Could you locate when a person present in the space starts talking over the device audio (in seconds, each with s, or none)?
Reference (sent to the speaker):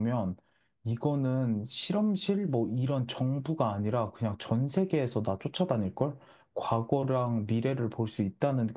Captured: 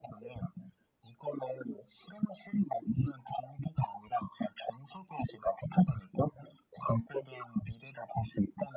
none